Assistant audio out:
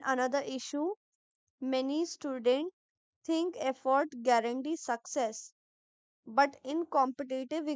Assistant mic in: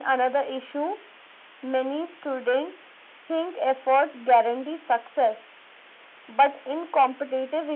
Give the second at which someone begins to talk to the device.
none

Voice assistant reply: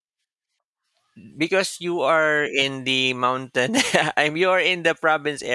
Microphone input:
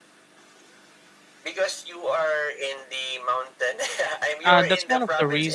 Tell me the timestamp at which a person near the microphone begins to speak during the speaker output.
4.4 s

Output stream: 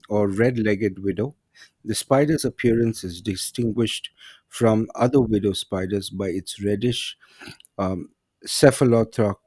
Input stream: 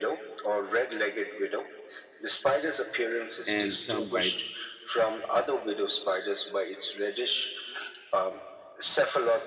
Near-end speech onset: 3.5 s

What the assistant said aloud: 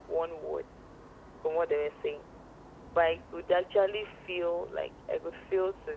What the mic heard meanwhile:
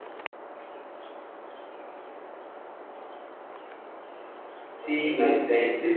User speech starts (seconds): 4.6 s

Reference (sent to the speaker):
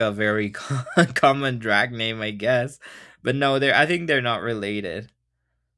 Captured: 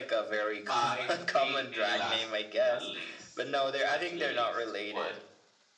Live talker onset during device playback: 0.7 s

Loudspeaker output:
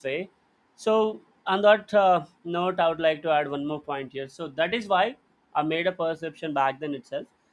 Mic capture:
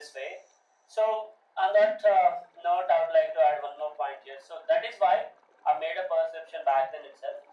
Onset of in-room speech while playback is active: none

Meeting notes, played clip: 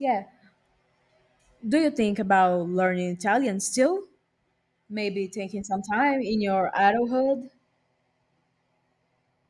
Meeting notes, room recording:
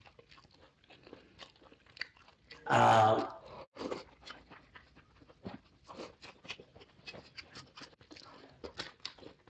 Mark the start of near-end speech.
2.7 s

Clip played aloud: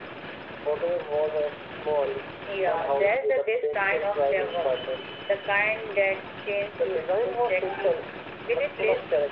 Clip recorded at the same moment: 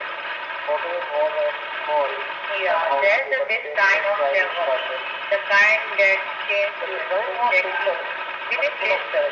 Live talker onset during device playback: none

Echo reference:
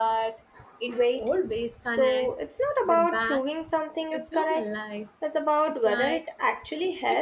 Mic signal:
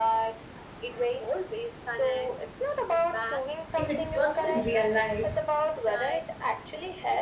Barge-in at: 3.8 s

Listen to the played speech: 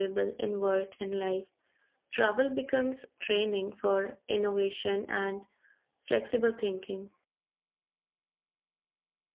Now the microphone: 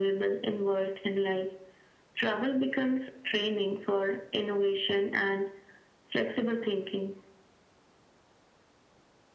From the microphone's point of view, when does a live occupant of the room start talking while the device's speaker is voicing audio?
none

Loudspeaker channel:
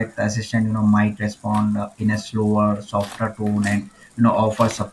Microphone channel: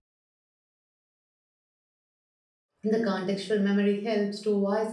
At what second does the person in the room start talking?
2.8 s

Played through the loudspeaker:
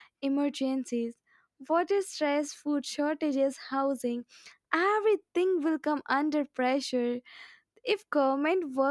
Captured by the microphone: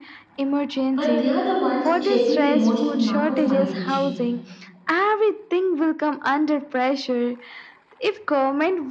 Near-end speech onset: 0.9 s

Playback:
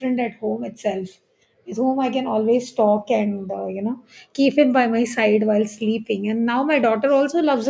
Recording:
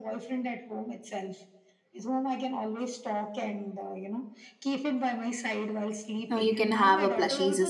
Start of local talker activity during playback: 6.3 s

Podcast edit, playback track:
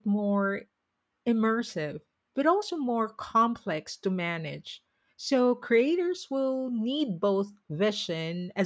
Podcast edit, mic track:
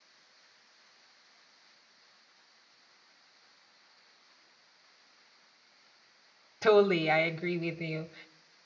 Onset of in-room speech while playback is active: 6.6 s

